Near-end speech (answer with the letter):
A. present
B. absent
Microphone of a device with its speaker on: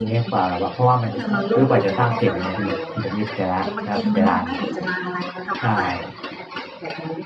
A